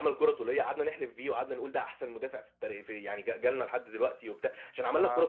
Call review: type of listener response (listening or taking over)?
listening